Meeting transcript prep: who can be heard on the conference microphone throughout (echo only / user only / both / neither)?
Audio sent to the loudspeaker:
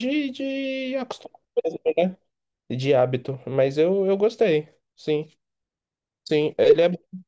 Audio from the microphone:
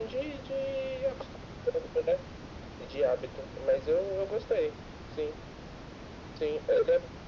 echo only